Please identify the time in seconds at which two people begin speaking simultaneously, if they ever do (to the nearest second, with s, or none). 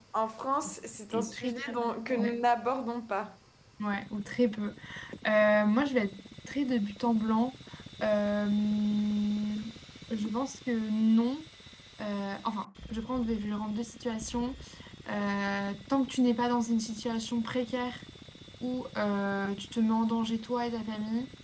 1 s